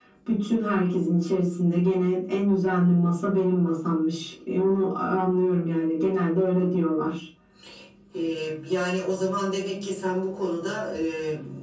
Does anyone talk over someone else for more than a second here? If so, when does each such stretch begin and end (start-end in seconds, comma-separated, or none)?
none